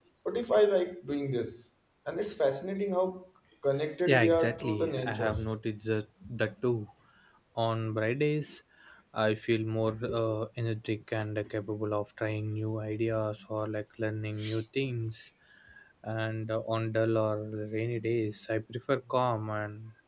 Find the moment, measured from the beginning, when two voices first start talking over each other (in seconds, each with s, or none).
4.1 s